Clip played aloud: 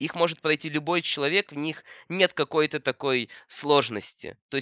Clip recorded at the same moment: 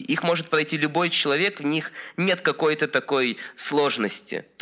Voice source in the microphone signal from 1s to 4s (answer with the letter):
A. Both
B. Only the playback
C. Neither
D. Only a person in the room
B